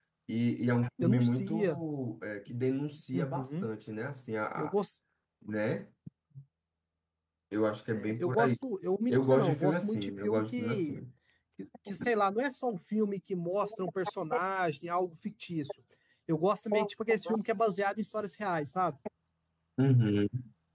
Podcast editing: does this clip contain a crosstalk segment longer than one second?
Yes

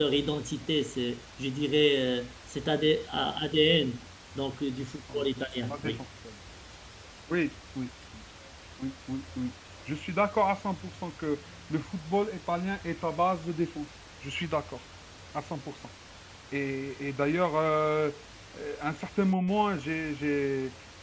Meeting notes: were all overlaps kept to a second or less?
Yes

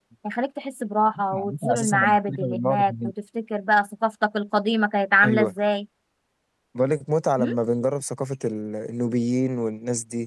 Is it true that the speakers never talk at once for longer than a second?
No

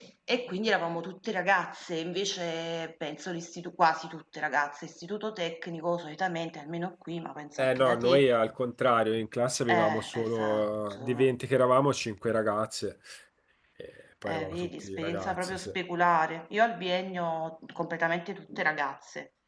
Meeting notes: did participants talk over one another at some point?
Yes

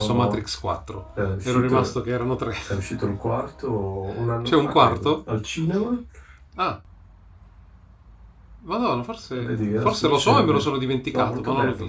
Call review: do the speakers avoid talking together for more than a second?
No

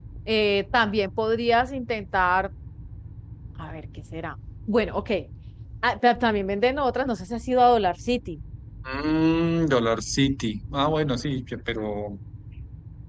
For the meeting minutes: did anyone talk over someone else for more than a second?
No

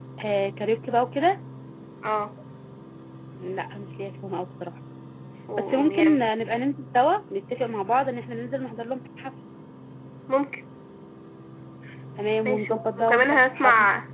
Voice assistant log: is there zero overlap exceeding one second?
No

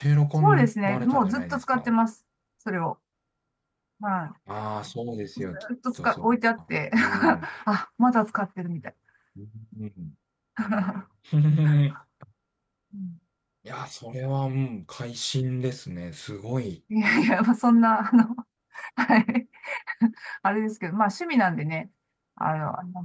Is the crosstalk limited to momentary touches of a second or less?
No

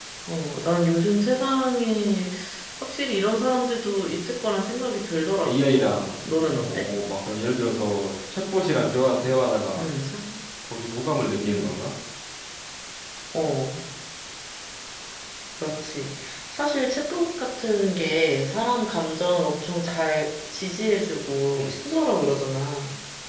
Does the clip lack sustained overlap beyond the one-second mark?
No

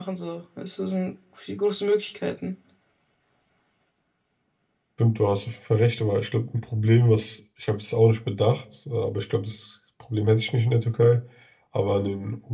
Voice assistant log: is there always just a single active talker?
Yes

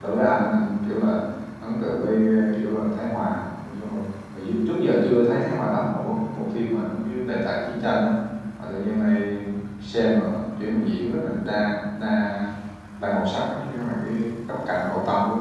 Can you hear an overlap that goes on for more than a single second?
No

